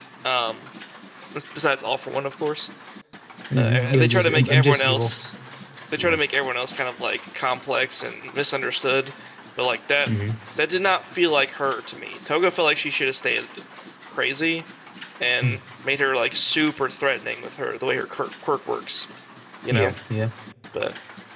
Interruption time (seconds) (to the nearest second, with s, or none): 4 s